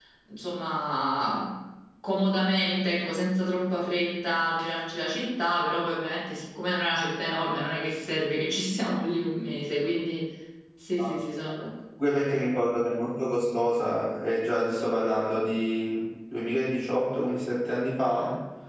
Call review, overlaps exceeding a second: none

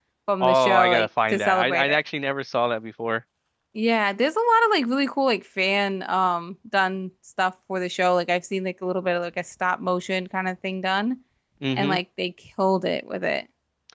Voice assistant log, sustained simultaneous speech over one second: present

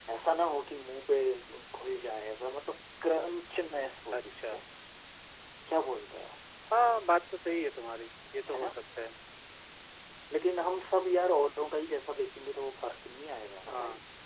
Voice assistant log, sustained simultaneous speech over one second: none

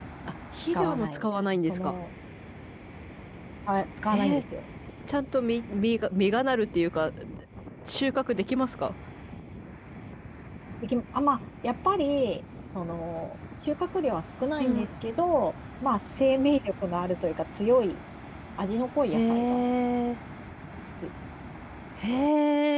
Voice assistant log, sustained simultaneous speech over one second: present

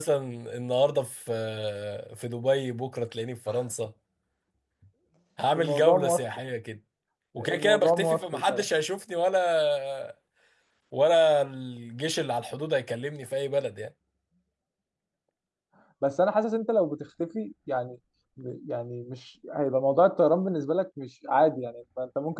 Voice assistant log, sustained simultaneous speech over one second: present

